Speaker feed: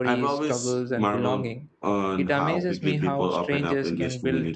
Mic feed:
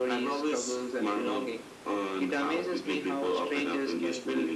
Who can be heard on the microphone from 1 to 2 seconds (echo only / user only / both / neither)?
echo only